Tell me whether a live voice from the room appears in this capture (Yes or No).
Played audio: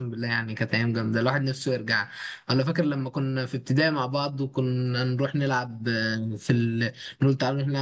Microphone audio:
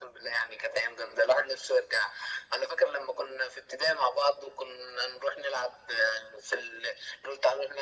No